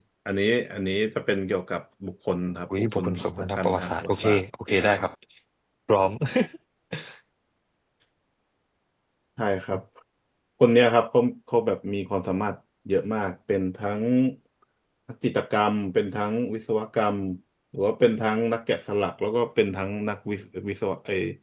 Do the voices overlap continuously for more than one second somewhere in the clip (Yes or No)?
Yes